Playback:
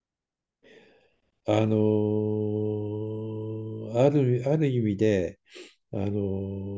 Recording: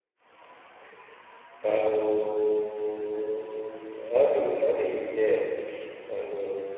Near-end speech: none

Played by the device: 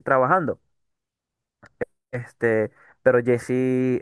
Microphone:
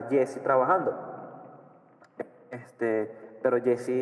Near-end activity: none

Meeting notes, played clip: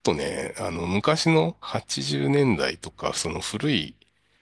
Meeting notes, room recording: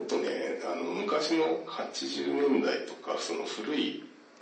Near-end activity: none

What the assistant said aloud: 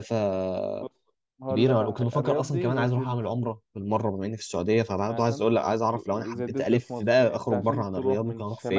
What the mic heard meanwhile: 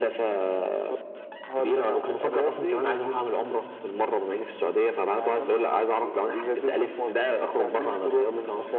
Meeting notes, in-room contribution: none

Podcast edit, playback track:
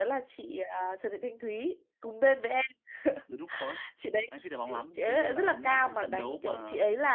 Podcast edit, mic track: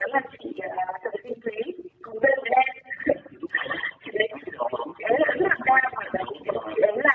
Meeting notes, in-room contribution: none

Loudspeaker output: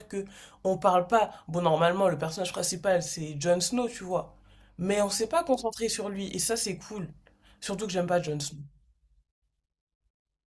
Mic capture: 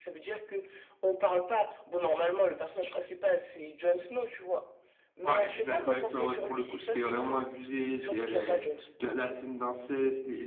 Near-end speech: present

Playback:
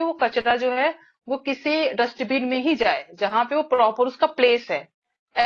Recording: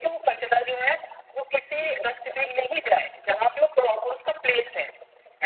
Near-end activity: none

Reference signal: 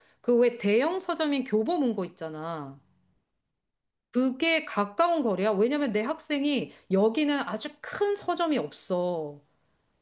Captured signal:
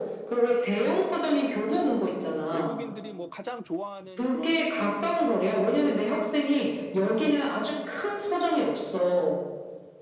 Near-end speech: present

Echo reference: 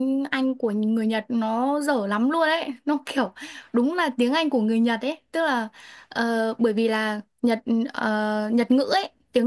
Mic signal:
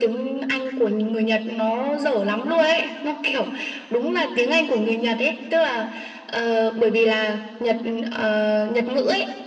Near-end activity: none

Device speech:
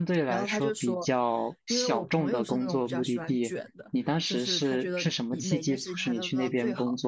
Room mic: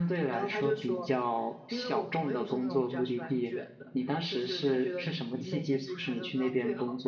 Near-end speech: none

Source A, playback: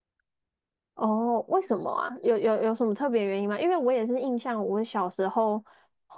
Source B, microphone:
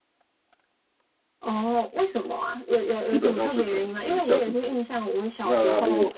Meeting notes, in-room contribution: present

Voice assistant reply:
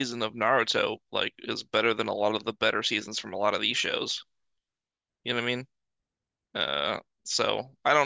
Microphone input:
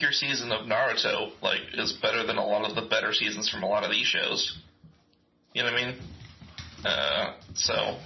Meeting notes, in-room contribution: none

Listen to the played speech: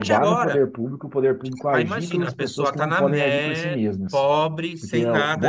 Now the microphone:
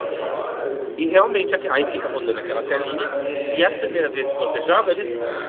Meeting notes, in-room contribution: present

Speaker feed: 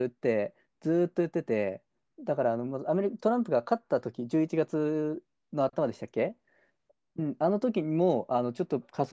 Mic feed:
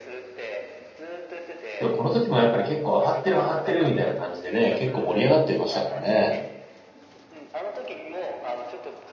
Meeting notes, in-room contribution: present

